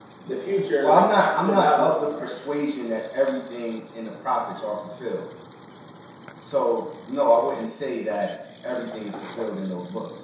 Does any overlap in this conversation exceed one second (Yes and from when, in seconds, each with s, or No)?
Yes, from 0.8 s